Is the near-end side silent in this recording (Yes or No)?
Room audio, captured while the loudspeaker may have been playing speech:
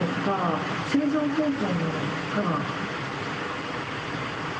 Yes